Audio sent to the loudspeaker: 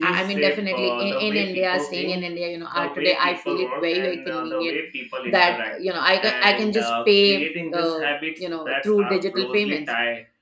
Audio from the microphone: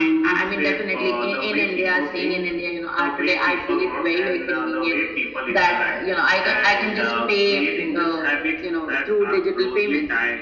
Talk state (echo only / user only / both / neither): echo only